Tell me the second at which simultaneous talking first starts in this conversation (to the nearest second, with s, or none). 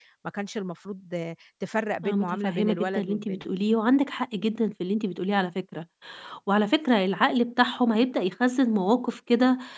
2 s